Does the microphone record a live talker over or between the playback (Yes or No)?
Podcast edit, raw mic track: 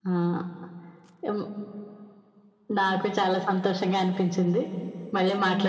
No